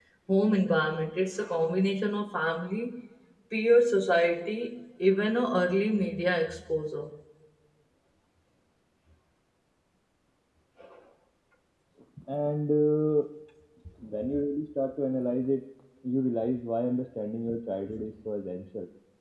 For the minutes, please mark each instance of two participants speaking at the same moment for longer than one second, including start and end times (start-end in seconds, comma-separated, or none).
none